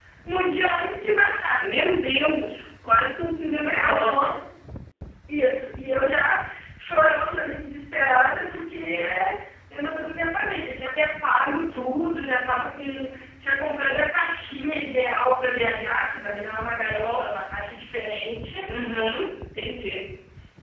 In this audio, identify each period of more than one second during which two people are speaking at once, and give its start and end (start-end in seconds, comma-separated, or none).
none